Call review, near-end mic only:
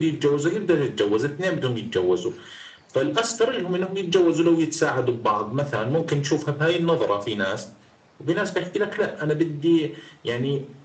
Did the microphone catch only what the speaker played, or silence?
Yes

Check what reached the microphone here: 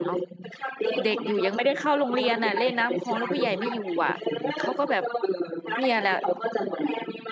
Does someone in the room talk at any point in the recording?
Yes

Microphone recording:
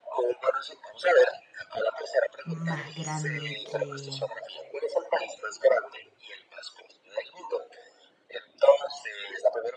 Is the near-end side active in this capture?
Yes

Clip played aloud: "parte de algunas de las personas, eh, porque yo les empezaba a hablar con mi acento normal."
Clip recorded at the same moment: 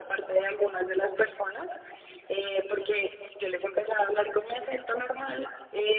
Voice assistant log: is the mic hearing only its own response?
Yes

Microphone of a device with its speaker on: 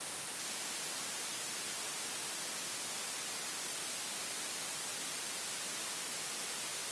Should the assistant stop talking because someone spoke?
No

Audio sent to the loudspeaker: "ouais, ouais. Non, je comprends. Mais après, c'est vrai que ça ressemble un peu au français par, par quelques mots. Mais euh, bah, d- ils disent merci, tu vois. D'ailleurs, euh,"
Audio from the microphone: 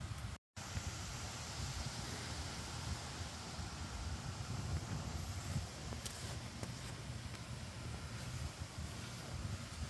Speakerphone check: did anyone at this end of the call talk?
No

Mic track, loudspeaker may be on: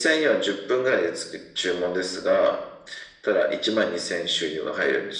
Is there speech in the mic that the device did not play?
No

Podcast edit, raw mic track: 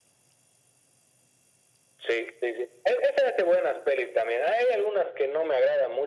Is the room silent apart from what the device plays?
Yes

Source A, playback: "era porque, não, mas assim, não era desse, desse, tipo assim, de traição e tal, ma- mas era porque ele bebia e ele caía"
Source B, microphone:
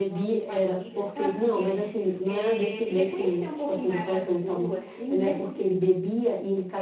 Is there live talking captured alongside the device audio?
Yes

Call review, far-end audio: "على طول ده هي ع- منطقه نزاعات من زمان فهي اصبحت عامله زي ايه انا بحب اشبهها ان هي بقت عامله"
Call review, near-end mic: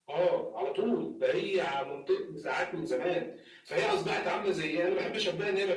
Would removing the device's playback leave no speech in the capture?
Yes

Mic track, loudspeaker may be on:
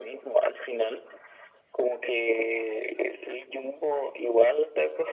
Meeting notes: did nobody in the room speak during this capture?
Yes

